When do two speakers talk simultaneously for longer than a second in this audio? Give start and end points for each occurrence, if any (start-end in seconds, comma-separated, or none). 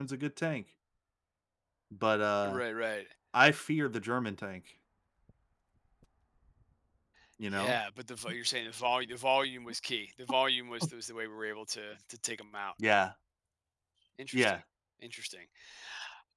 none